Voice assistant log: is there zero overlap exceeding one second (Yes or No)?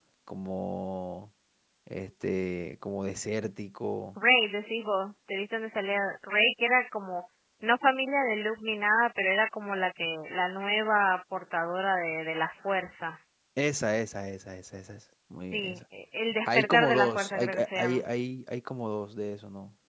No